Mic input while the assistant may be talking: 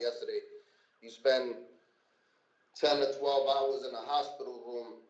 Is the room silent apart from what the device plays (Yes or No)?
Yes